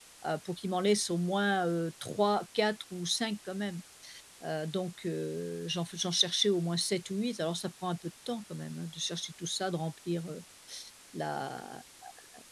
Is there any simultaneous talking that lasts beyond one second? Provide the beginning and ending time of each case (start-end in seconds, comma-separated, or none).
none